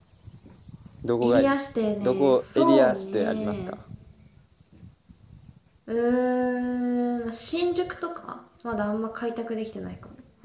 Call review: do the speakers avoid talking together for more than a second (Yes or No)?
No